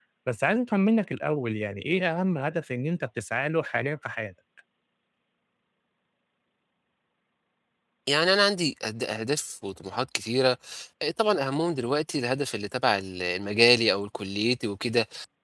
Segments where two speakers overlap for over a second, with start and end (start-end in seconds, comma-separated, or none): none